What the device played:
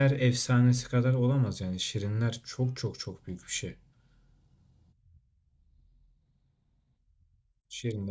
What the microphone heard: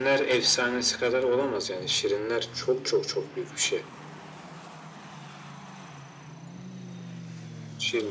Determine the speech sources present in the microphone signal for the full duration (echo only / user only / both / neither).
echo only